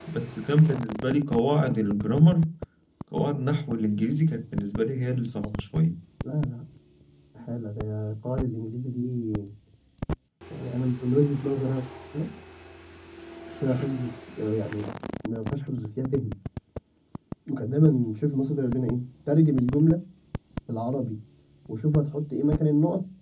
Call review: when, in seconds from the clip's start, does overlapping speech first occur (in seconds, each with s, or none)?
none